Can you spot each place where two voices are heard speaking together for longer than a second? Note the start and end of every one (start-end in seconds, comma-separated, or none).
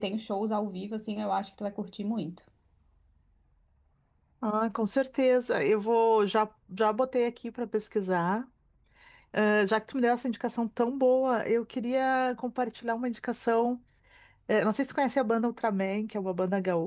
none